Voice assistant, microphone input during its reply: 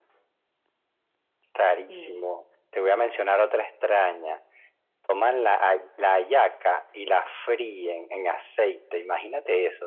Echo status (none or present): present